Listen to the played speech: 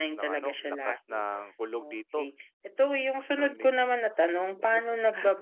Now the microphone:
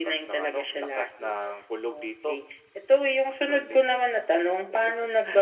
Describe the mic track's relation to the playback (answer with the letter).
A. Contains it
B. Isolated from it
A